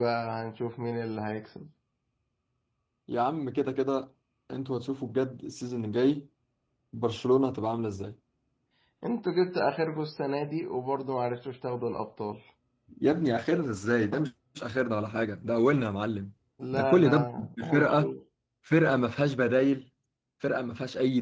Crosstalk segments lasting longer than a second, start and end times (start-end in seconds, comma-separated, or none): 16.7-18.1